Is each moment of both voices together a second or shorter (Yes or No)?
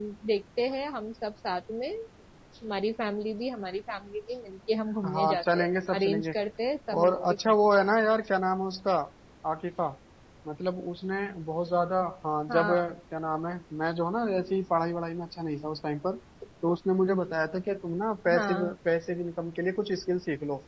No